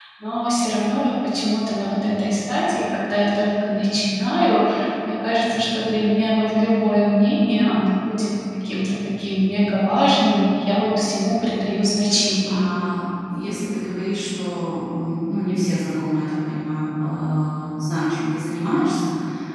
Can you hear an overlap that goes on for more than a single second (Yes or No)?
No